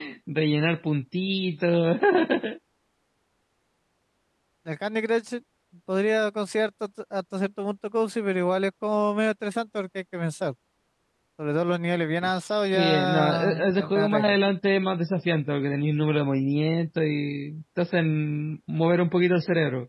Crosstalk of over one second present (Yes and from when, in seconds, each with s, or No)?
Yes, from 12.2 s